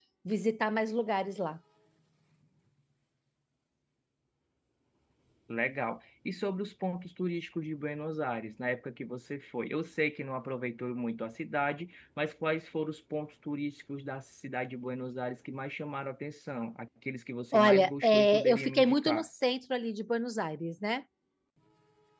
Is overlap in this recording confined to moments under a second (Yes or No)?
No